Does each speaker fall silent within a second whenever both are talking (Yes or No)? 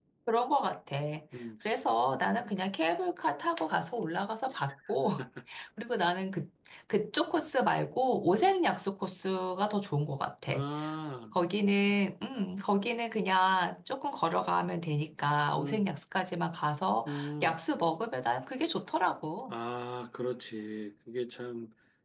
Yes